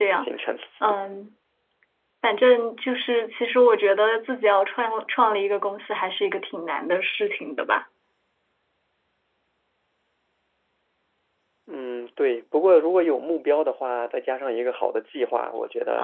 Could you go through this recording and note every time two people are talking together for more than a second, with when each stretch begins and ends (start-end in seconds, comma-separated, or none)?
none